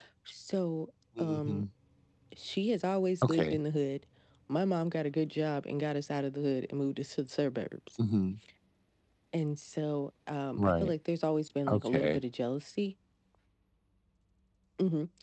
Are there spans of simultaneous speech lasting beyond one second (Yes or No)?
No